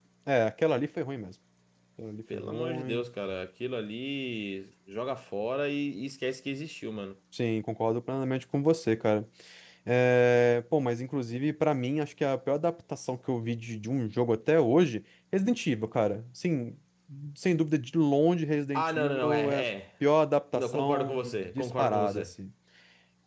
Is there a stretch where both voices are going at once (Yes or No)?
Yes